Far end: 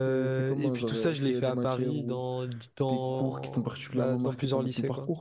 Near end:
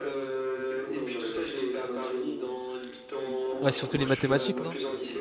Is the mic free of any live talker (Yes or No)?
No